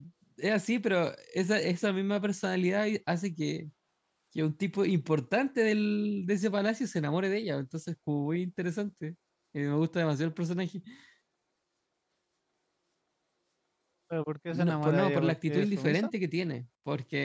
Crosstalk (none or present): present